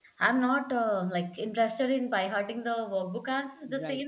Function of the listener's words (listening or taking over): listening